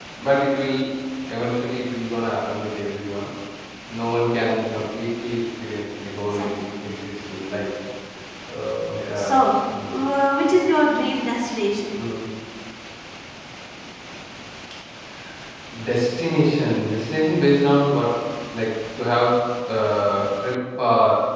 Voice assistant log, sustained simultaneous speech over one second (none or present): none